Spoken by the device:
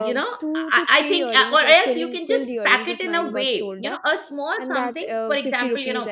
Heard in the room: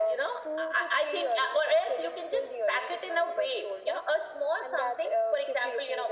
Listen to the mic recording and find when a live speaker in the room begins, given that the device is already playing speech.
none

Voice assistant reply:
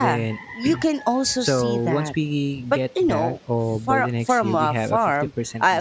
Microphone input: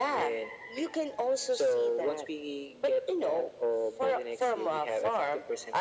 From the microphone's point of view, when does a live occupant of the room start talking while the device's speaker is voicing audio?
none

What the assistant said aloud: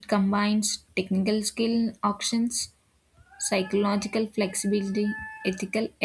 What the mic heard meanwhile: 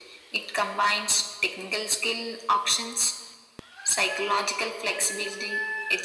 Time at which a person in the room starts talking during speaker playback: none

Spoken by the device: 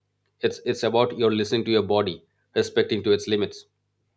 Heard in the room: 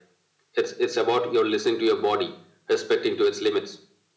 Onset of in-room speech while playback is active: none

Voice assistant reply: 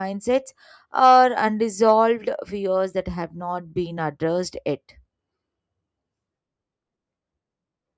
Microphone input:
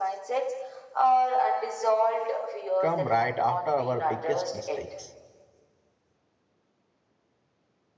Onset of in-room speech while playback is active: 2.8 s

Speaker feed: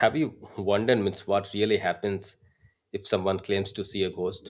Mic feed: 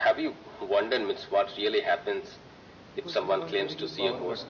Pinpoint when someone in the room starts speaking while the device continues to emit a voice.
2.9 s

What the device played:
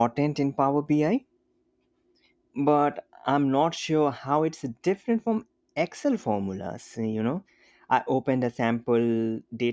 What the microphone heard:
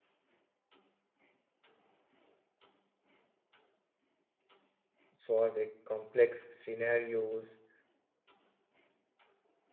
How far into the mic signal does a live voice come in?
5.2 s

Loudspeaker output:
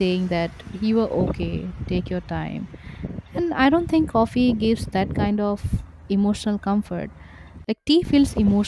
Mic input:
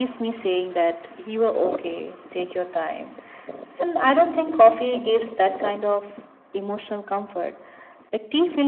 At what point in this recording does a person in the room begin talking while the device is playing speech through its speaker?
none

